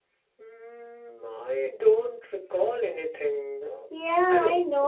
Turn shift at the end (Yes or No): Yes